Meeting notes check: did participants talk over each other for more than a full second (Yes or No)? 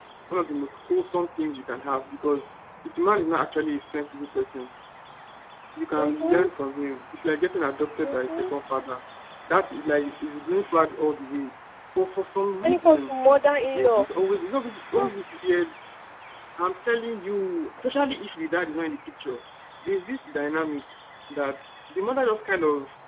No